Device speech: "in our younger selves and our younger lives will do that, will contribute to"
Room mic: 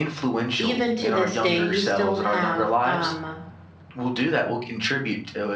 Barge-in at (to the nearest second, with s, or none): 1 s